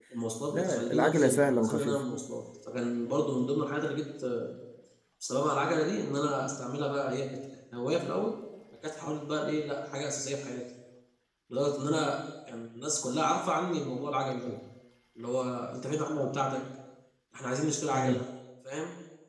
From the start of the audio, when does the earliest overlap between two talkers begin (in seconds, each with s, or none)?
0.5 s